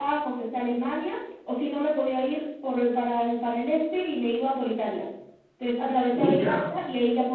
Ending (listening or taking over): listening